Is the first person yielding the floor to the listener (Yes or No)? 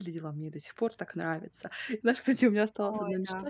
No